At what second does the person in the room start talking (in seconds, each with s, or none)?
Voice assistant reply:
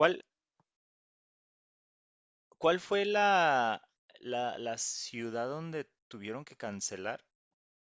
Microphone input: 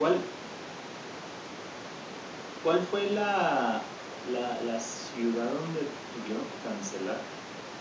none